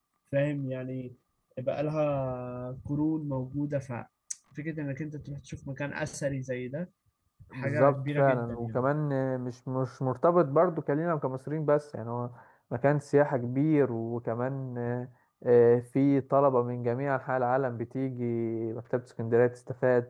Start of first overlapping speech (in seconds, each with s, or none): 7.5 s